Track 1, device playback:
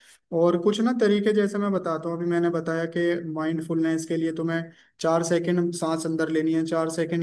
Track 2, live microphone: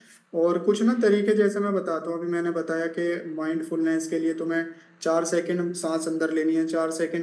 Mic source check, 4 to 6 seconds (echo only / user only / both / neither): echo only